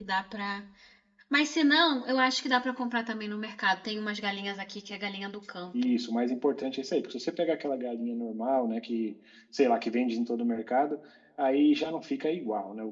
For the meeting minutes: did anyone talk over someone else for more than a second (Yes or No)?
No